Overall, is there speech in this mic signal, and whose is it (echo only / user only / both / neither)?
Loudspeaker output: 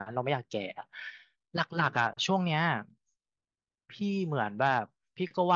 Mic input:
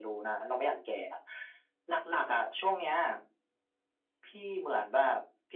echo only